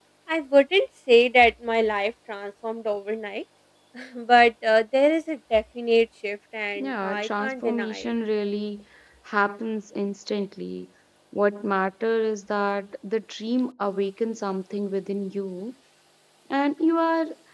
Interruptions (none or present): present